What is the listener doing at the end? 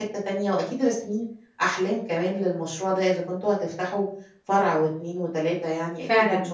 taking over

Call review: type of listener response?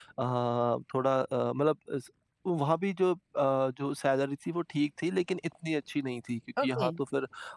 listening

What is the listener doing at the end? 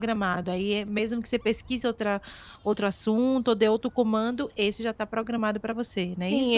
taking over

